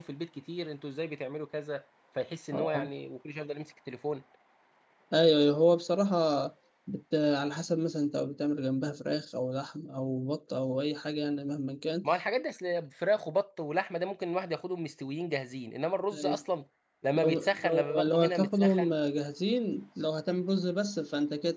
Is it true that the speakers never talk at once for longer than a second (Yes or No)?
No